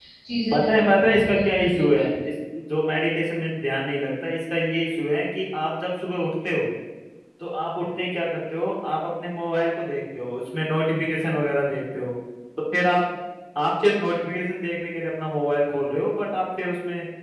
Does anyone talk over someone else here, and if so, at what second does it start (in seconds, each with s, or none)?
0.5 s